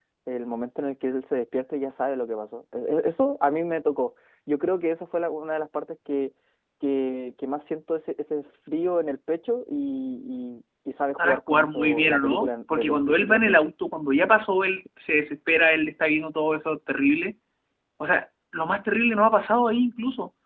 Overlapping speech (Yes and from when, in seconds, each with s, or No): Yes, from 11.2 s